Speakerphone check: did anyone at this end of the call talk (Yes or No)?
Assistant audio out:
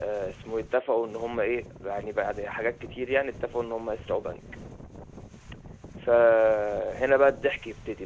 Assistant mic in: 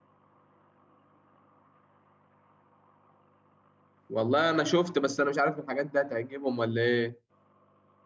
Yes